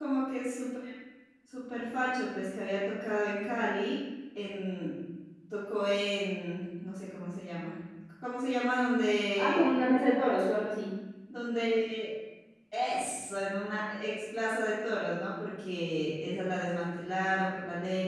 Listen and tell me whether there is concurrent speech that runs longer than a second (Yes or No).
No